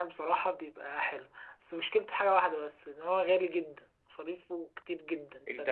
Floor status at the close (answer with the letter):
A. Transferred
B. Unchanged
A